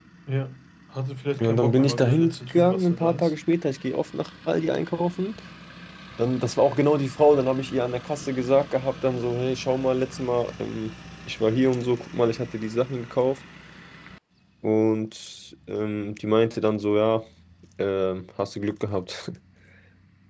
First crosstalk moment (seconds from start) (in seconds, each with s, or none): 1.4 s